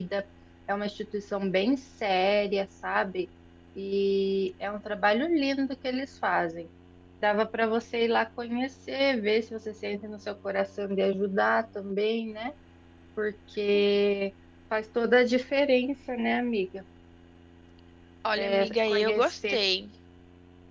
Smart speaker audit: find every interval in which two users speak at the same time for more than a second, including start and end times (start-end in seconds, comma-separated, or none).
18.4-19.6